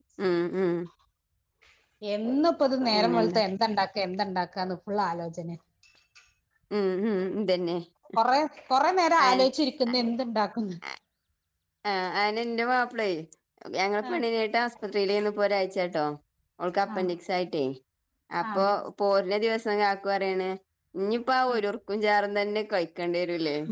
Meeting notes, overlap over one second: none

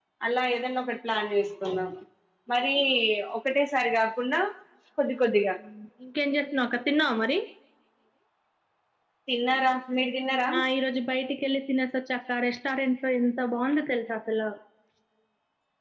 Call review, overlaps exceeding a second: none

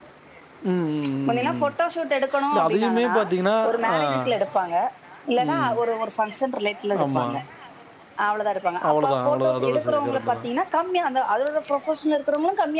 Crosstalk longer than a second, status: present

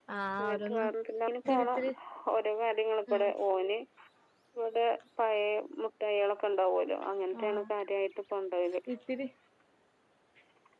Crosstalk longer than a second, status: none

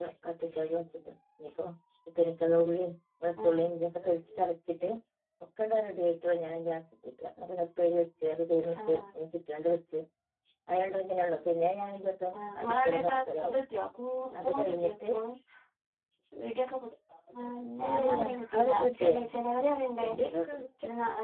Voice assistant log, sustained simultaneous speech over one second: present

